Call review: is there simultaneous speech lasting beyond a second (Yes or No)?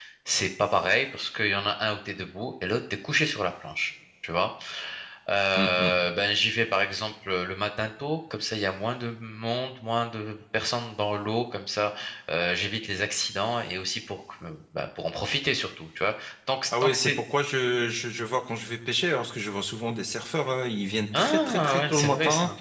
Yes